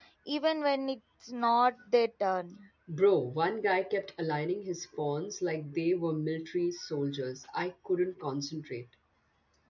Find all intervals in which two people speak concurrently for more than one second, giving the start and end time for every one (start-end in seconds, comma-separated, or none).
none